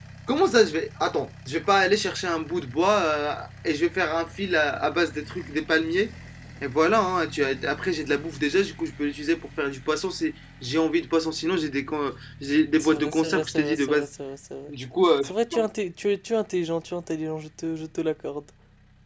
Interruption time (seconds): 12.8 s

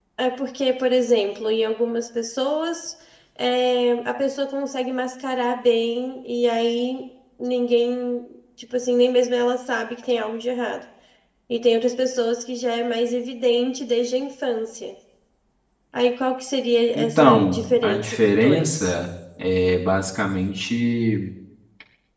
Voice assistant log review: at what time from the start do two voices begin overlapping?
17.0 s

